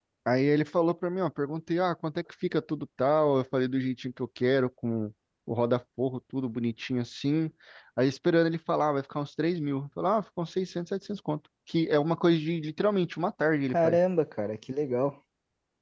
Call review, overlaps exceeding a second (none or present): none